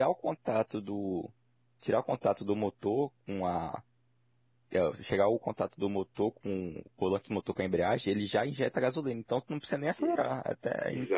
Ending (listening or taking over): taking over